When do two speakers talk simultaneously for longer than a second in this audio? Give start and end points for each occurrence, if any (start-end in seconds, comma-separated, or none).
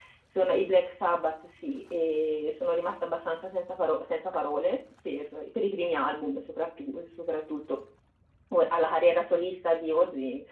none